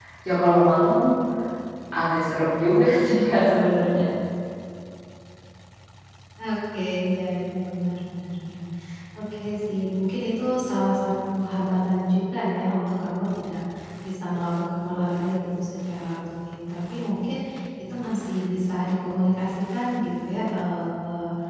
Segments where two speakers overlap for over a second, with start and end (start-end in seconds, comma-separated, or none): none